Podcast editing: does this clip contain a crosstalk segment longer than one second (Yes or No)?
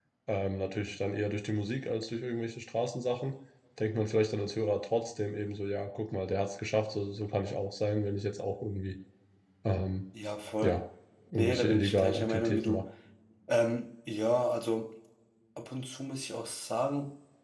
Yes